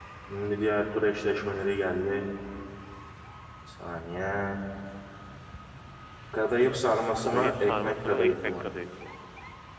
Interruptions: present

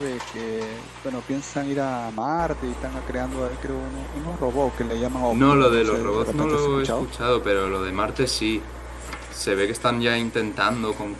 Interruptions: present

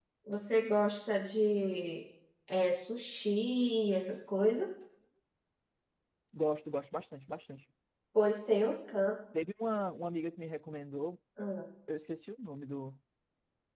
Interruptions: none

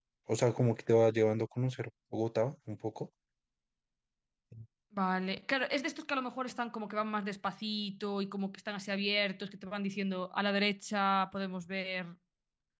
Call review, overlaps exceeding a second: none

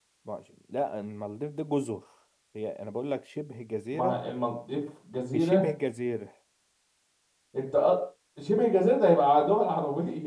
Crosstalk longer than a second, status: none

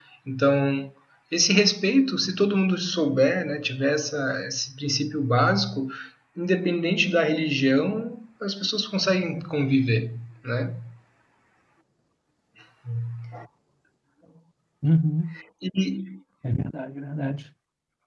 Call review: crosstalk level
none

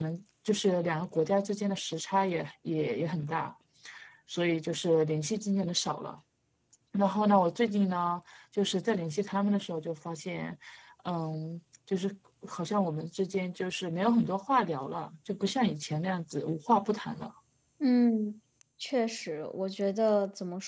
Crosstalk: none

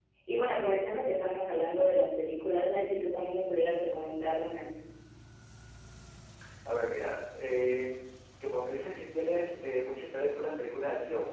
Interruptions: none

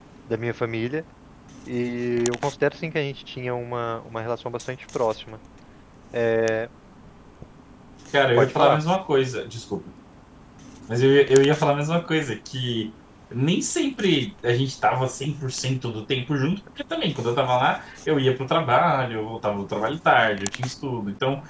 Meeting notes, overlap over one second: none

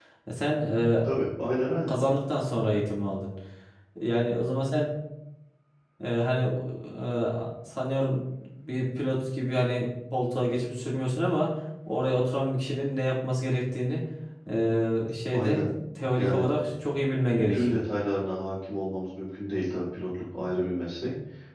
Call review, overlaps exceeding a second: none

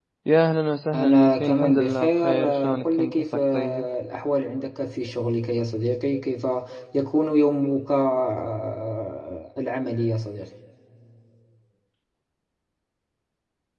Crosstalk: present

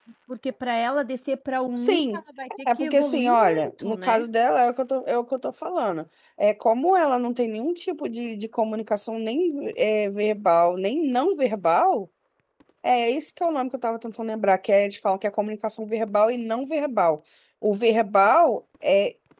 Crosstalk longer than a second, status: present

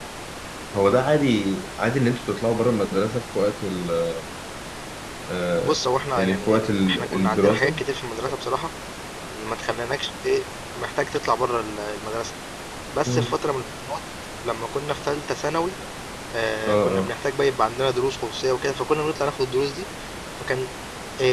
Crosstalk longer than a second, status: present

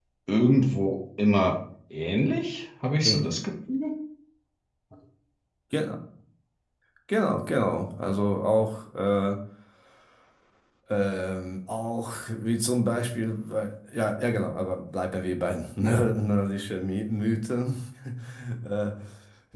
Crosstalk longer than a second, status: none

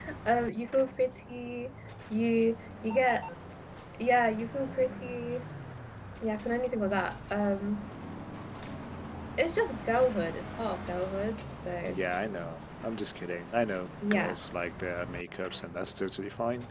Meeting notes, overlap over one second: none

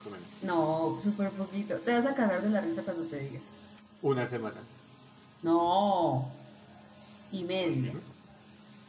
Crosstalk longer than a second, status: none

